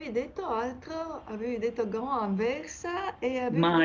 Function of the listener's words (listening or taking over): taking over